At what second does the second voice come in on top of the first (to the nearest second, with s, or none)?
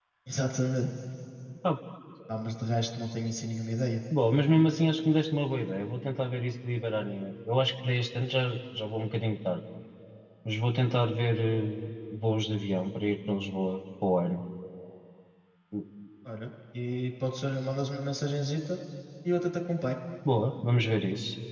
none